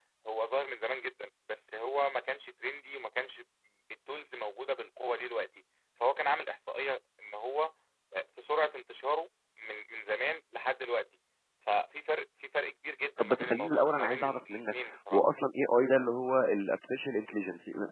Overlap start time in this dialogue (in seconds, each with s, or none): 13.2 s